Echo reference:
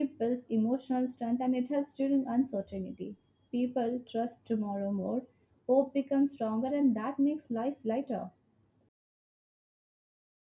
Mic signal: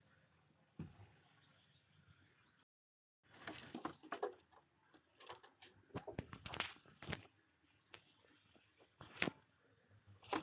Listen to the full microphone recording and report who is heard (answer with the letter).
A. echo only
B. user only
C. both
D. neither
D